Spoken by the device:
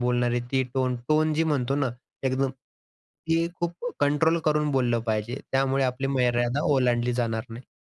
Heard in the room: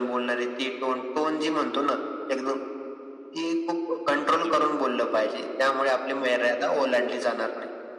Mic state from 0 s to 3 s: echo only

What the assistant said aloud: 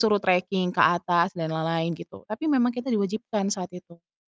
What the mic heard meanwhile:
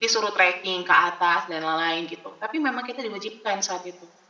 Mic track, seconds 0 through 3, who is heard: echo only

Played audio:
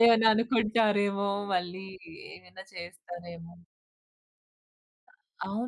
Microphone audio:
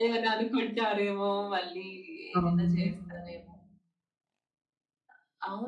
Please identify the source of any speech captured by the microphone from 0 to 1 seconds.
echo only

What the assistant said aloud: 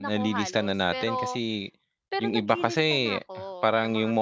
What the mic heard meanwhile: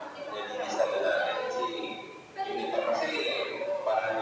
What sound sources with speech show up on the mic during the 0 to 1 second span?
echo only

